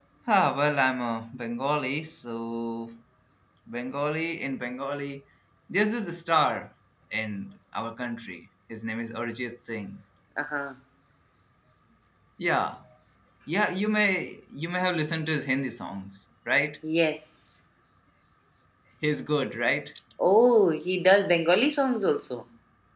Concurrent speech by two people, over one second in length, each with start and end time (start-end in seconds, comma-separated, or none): none